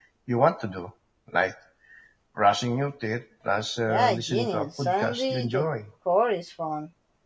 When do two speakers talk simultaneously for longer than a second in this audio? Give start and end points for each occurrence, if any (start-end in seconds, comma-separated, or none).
3.9-5.7